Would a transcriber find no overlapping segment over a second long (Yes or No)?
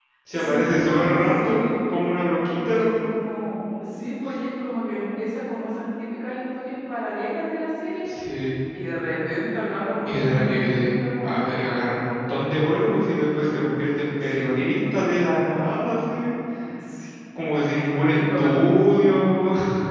No